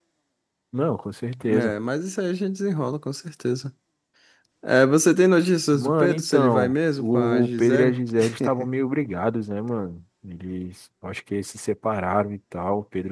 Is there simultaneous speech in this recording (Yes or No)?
Yes